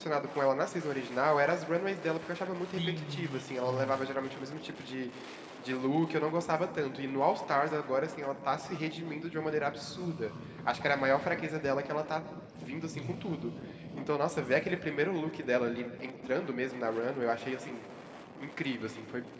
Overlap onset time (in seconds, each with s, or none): 2.7 s